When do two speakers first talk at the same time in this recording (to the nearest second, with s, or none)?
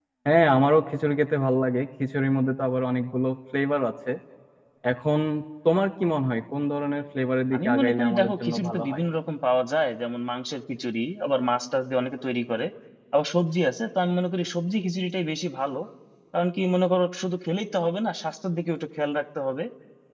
8 s